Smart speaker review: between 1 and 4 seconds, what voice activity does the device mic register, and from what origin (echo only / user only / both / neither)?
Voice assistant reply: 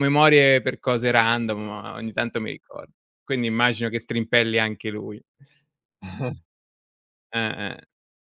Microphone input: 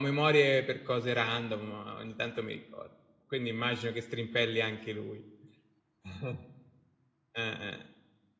echo only